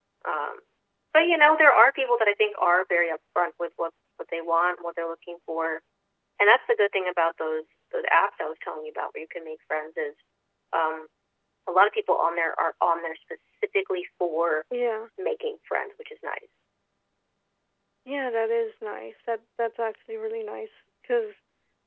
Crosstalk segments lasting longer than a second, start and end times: none

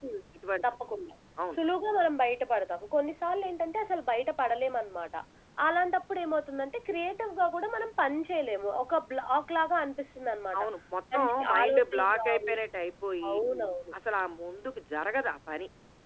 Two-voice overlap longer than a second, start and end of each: 11.1-12.5

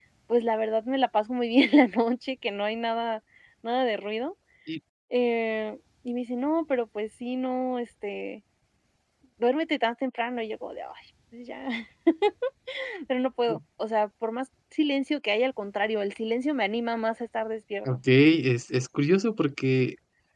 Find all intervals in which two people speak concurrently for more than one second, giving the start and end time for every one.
none

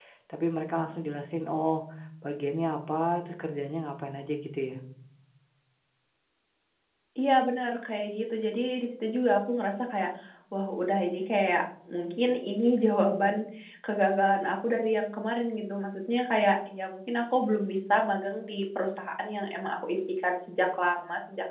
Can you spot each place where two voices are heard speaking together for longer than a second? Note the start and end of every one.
none

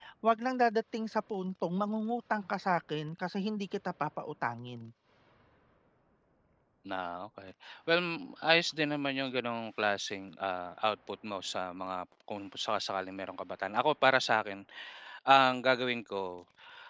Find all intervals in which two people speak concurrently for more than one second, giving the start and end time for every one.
none

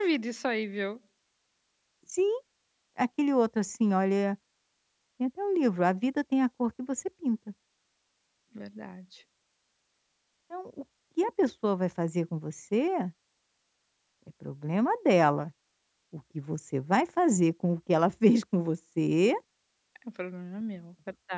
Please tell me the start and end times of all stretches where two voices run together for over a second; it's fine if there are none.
none

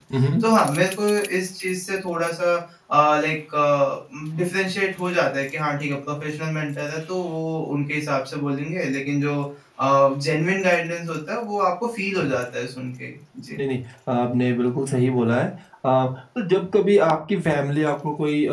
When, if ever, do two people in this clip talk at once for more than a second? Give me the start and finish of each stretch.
none

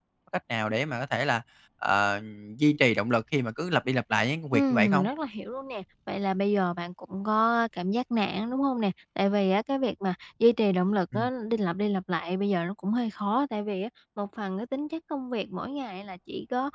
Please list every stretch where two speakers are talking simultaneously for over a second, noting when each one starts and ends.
none

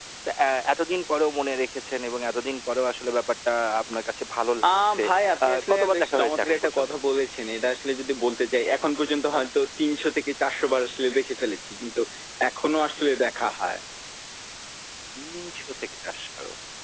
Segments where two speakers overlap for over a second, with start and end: 5.4-6.9

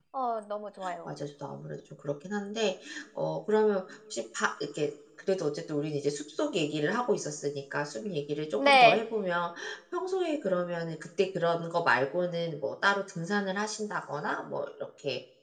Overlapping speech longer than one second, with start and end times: none

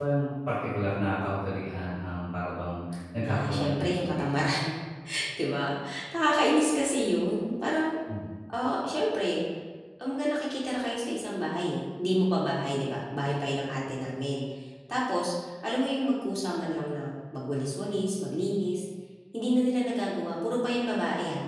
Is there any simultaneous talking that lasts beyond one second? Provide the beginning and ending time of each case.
3.2-4.5

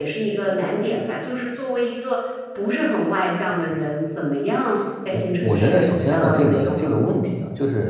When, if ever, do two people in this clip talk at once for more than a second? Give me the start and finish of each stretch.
5.1-7.1

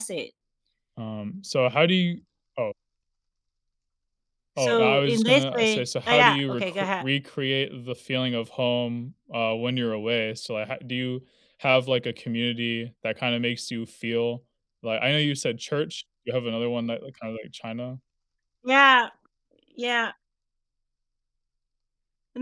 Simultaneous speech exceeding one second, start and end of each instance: 4.6-7.0

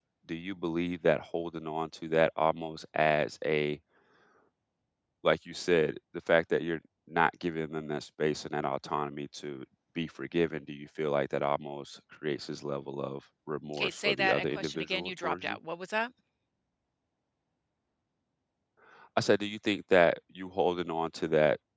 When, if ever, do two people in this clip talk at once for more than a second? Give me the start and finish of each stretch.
13.8-15.6

